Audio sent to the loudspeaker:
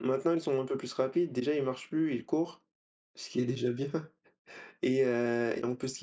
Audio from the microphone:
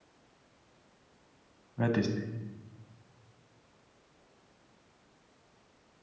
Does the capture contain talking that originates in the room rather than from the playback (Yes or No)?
Yes